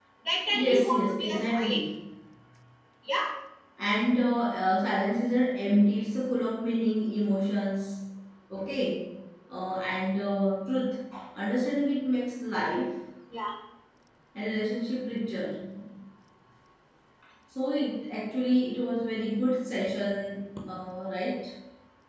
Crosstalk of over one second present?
Yes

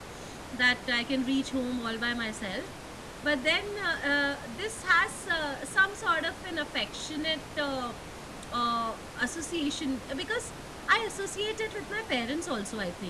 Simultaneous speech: No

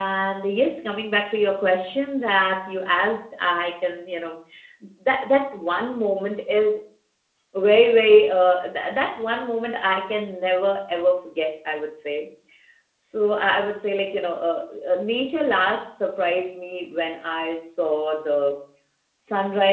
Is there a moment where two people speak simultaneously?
No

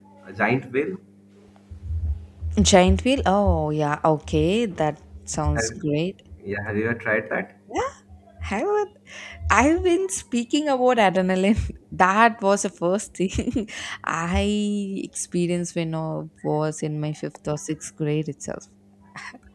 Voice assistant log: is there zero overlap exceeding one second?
Yes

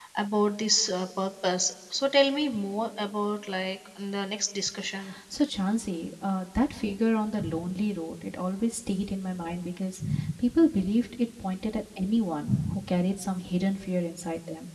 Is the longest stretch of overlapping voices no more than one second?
Yes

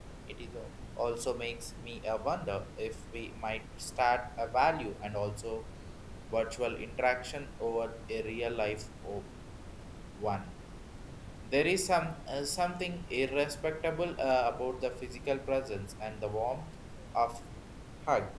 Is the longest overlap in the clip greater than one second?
No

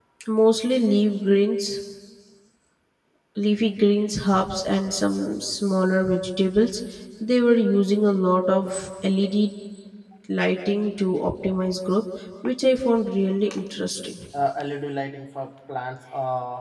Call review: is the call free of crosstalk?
Yes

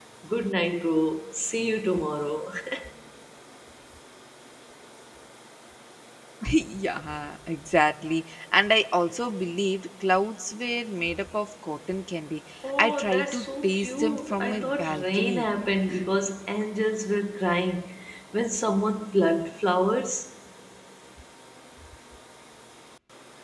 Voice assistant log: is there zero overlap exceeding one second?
No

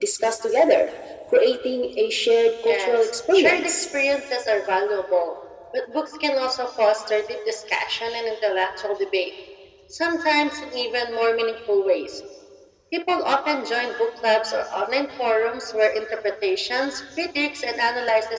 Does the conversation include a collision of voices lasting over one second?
Yes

